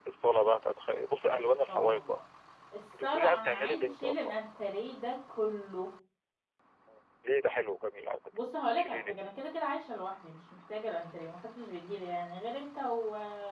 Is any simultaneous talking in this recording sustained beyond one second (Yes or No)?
Yes